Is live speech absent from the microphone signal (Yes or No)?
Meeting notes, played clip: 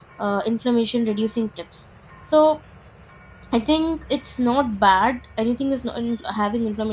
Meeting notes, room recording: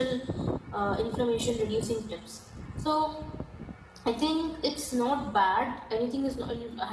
Yes